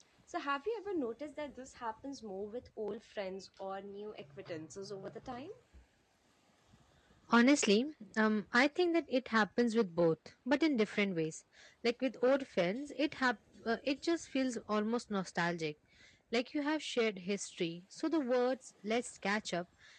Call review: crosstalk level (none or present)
none